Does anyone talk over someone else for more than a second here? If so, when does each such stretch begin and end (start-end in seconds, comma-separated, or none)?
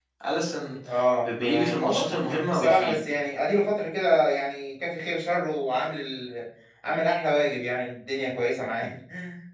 1.2-3.0